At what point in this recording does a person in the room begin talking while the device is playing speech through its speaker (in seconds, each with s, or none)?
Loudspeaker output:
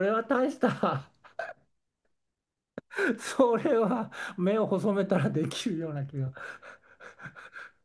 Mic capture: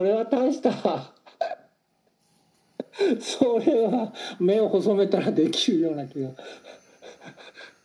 none